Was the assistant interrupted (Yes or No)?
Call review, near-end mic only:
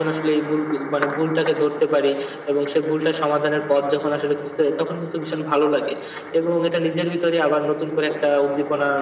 No